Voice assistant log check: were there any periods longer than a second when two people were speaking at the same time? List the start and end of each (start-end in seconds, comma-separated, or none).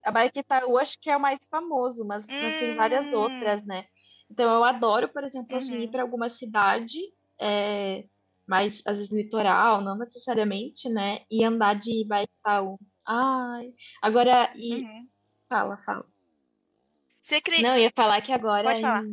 2.4-3.7